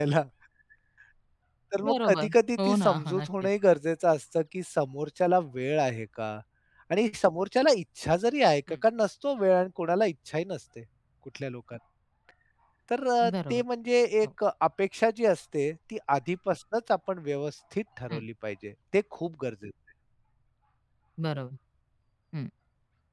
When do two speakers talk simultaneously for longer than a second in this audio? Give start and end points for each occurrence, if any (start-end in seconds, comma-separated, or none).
1.9-3.5